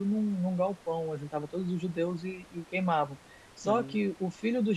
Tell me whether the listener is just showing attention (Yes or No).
Yes